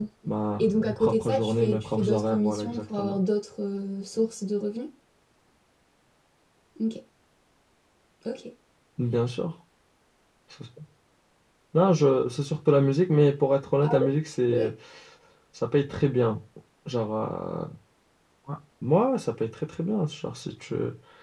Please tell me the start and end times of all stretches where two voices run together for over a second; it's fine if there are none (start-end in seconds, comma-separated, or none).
0.6-3.2